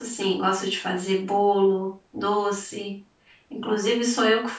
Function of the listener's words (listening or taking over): listening